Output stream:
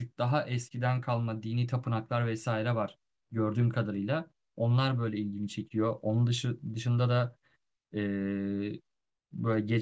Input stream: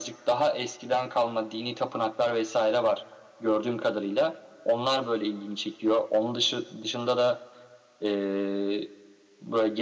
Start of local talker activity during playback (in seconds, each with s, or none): none